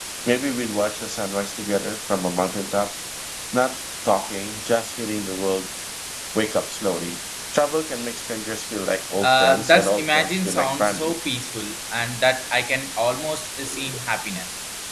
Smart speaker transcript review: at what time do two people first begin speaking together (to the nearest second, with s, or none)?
9 s